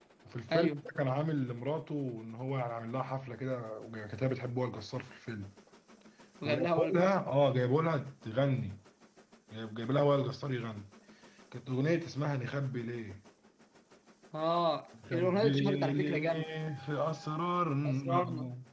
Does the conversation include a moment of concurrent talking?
Yes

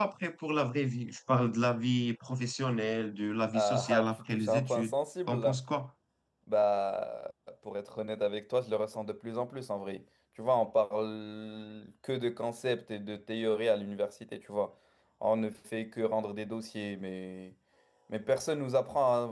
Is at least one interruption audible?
Yes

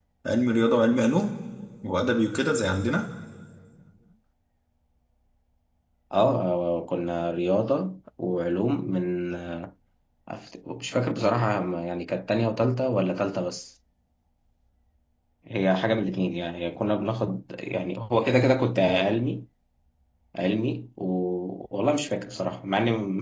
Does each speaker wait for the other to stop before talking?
Yes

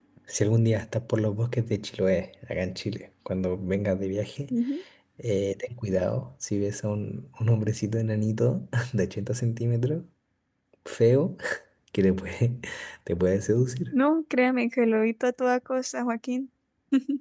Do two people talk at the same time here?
No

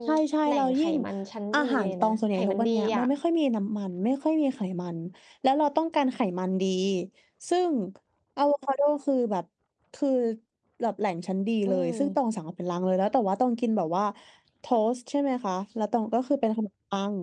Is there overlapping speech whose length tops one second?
Yes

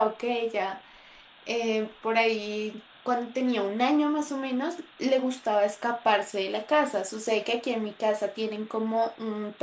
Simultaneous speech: No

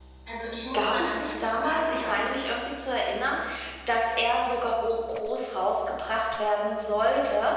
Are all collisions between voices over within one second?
No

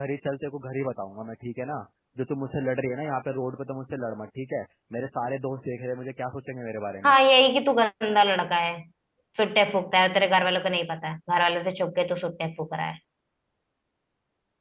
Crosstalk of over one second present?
No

